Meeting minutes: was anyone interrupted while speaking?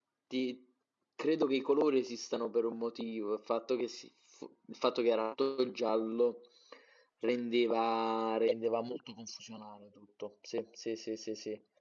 No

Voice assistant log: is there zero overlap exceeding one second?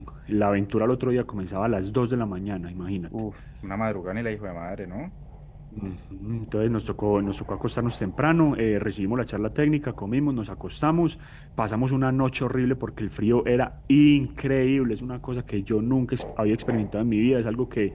Yes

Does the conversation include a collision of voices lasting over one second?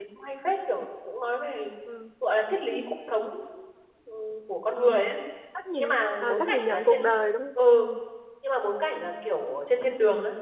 Yes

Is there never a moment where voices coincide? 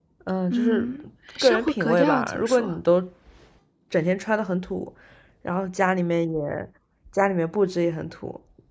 No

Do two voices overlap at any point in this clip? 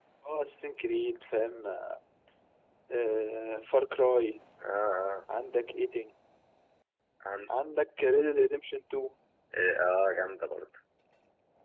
No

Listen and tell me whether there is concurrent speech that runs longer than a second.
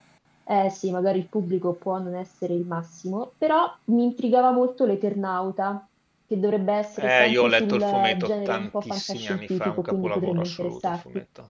Yes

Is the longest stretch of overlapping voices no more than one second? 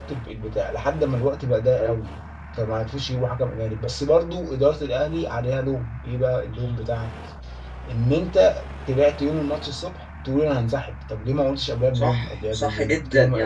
No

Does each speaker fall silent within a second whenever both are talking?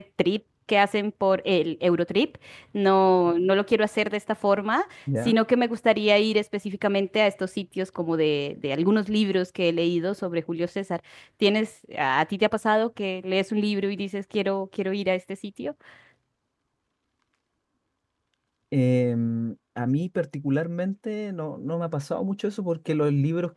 Yes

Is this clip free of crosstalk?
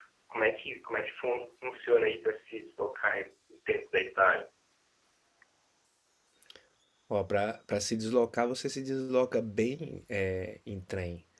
Yes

